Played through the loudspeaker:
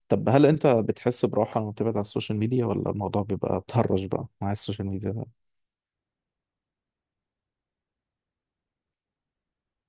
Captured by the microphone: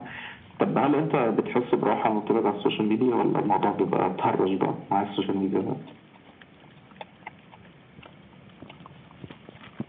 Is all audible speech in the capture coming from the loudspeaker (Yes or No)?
Yes